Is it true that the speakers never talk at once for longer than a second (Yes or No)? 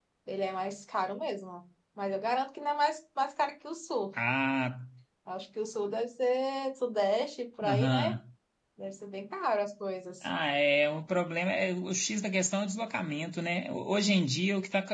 Yes